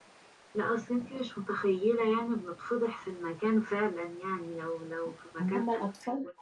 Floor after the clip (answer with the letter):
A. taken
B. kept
A